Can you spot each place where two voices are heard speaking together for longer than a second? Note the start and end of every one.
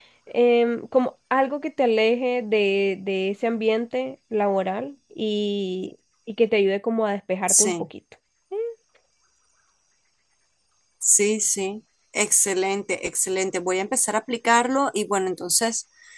none

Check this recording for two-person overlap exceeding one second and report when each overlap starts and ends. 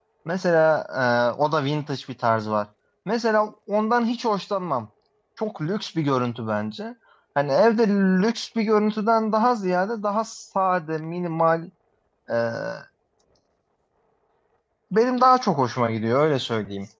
none

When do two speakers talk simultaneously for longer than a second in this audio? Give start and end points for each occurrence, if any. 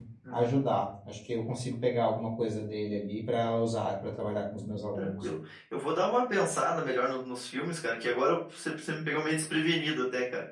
none

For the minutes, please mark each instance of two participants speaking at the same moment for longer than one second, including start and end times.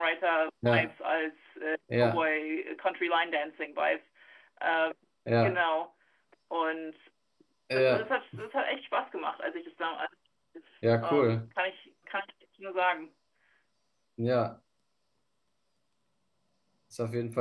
none

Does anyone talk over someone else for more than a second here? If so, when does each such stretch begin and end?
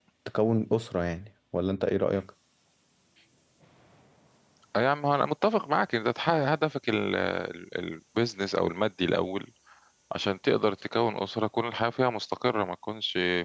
none

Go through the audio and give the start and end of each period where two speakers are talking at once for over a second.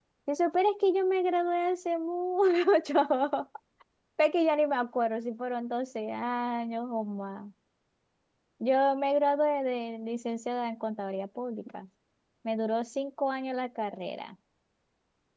none

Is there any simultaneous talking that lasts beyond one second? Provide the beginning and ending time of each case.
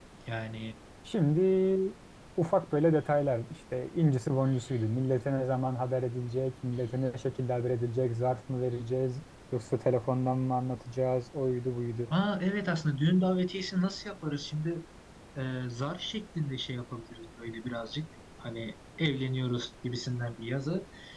none

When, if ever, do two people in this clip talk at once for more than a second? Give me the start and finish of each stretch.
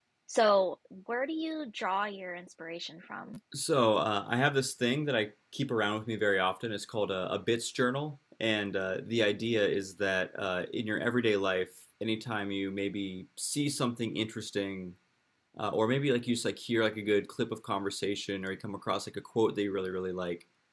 none

